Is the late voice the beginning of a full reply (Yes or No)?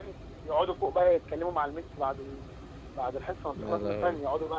No